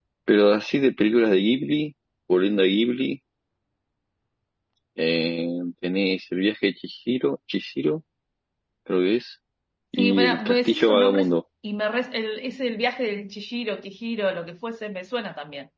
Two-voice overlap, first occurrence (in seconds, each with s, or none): 10.0 s